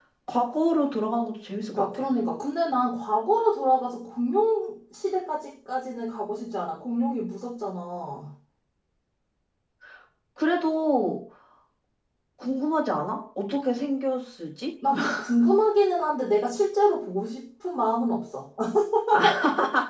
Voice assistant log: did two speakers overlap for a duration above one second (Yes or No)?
No